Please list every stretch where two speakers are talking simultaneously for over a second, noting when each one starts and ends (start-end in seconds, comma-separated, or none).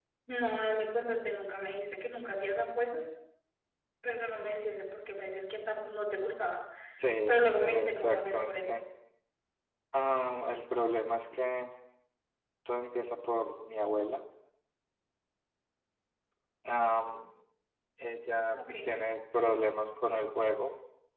7.3-8.8